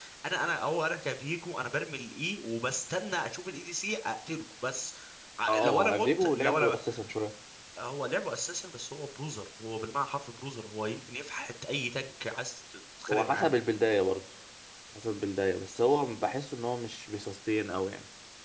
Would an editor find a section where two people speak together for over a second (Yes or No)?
Yes